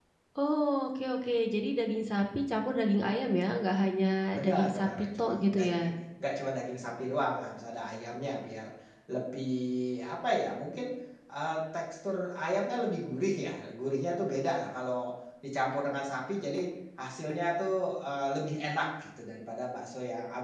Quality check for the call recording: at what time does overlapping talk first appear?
4.3 s

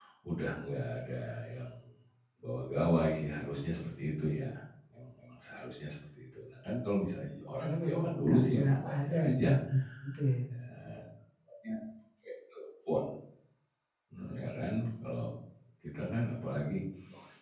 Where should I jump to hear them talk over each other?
7.6 s

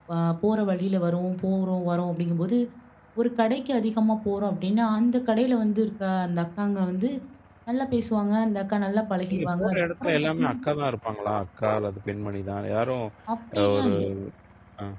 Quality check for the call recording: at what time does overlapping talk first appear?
9.3 s

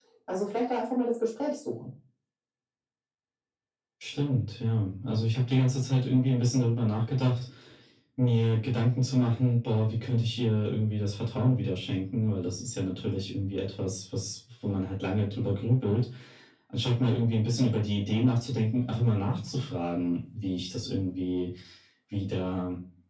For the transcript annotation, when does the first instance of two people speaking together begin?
none

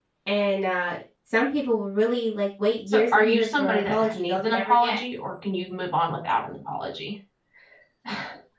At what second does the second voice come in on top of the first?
2.9 s

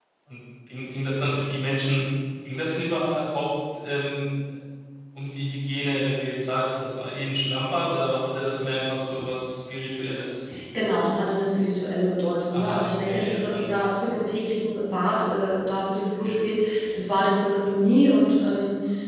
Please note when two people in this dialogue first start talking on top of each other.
12.5 s

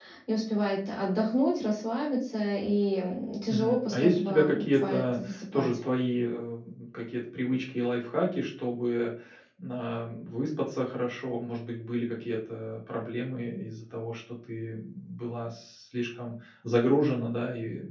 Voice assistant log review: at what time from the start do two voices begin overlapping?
3.5 s

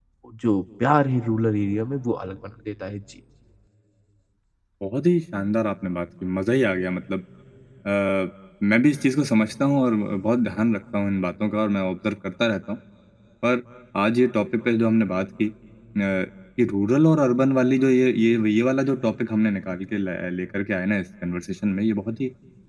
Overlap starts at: none

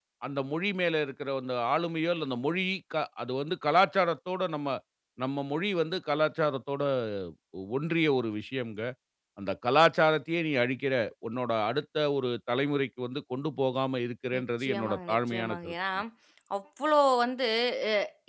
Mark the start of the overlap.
14.3 s

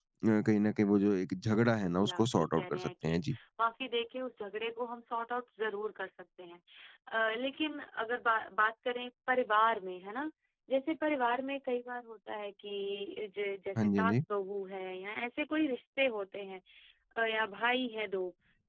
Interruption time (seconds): 1.8 s

